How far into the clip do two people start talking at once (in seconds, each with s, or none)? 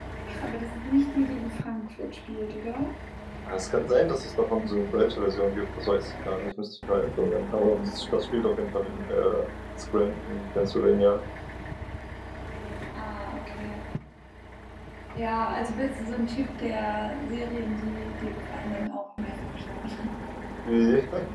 none